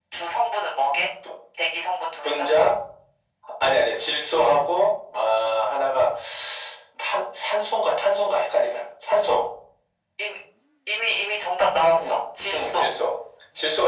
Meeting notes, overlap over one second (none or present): none